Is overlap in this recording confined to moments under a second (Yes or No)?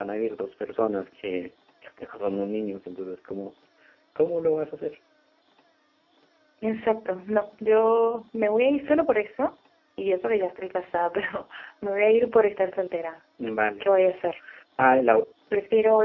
Yes